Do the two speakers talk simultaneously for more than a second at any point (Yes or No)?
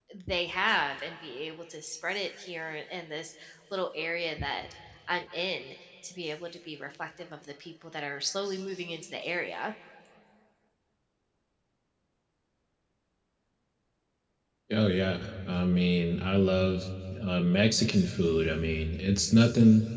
No